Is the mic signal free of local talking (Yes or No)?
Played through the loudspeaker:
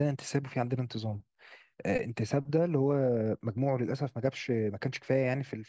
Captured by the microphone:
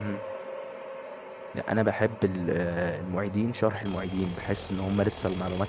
No